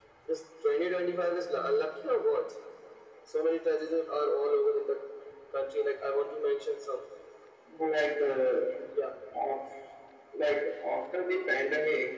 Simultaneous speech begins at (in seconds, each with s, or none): none